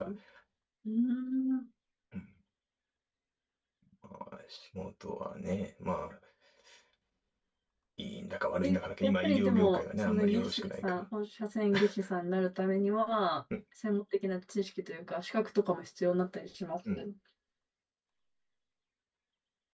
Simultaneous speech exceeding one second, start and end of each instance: 8.6-11.0

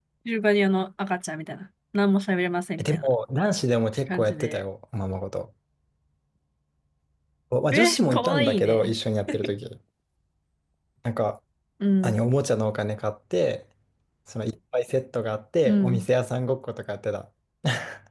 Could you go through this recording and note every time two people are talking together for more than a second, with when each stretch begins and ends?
7.7-8.9

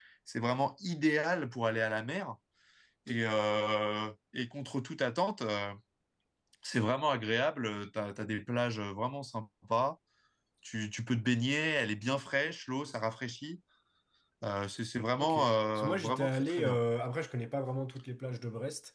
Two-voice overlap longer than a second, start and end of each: 15.2-16.8

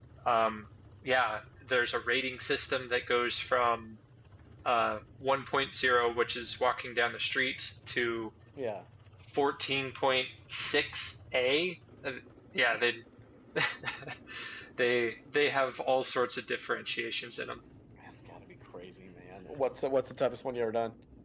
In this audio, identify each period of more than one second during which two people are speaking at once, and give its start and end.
none

